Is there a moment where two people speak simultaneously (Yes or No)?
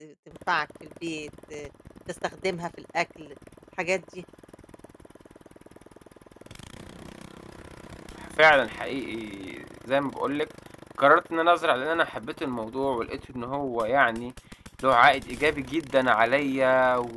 No